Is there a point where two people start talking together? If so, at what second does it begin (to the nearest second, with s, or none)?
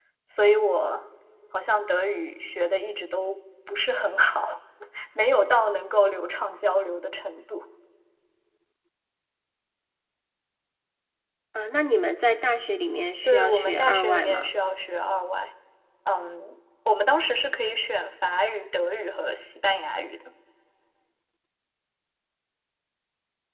13 s